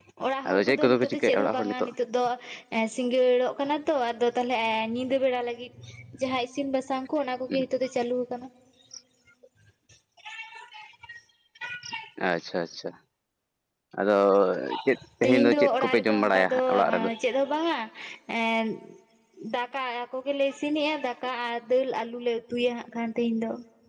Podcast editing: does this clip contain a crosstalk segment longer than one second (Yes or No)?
Yes